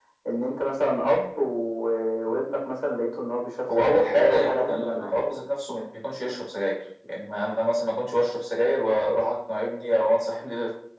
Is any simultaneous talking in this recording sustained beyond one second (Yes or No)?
Yes